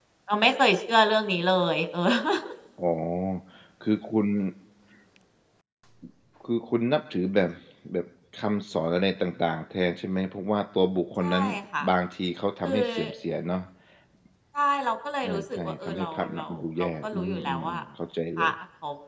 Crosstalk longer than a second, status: present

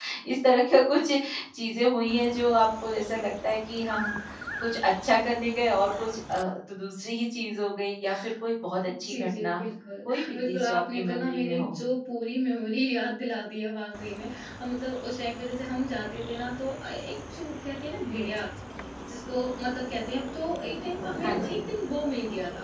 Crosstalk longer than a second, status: present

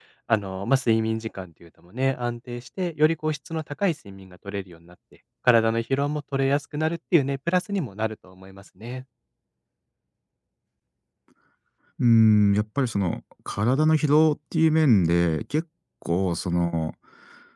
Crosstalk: none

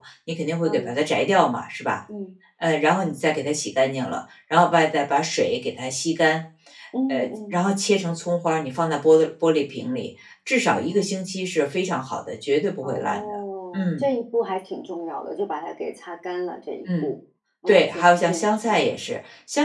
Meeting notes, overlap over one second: present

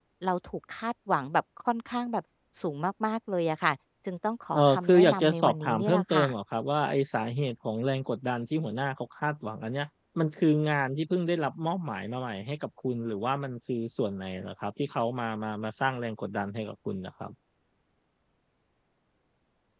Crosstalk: present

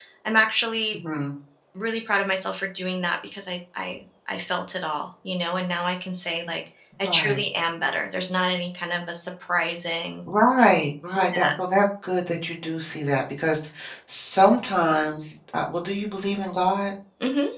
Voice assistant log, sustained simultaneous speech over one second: none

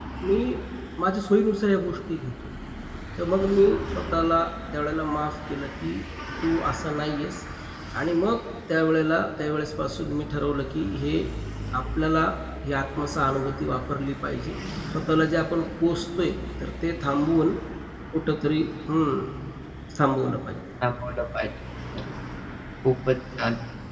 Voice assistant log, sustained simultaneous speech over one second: none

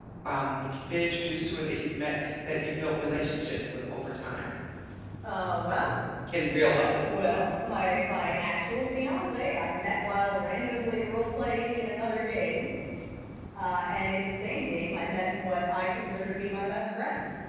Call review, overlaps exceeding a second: none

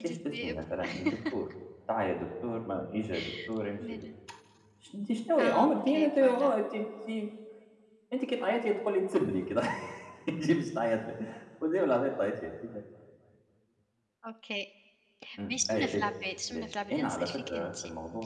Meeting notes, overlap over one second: present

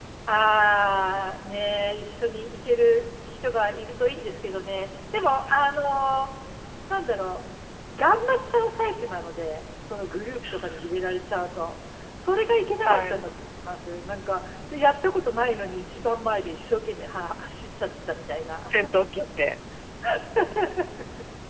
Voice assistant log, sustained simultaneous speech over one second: none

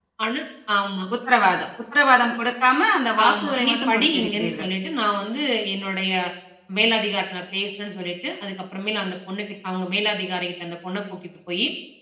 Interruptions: present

